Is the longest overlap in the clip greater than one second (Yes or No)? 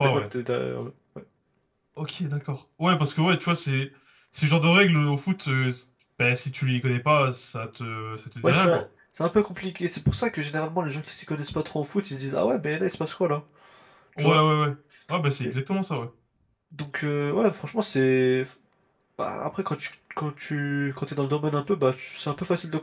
No